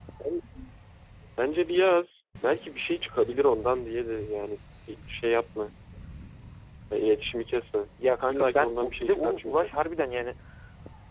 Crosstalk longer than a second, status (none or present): present